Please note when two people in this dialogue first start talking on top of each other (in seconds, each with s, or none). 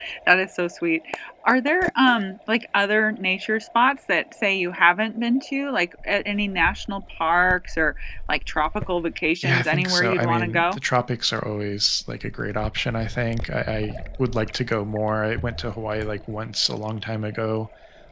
9.4 s